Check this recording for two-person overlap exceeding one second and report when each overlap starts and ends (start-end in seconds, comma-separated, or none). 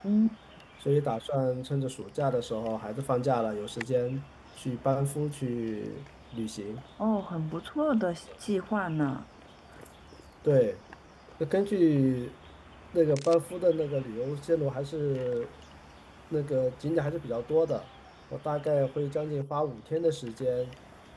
none